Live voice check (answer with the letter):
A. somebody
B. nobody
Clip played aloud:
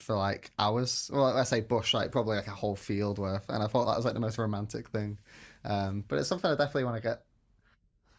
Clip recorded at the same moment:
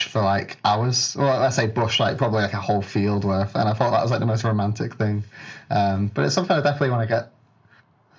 B